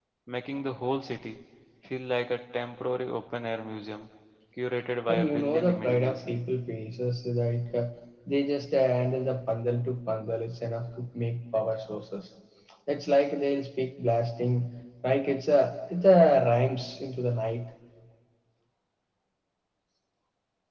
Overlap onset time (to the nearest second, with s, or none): 5 s